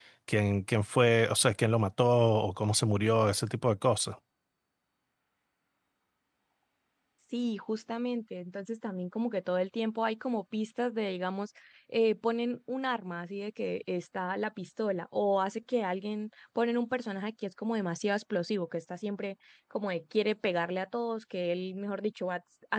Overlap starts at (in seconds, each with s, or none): none